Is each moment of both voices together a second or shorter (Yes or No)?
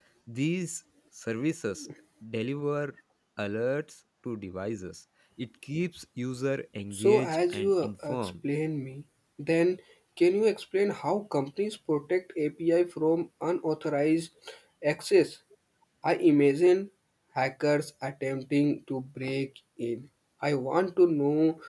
No